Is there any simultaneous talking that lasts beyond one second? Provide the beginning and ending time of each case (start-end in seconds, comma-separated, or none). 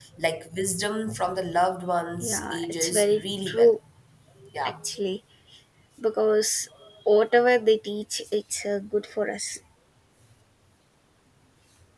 2.3-3.7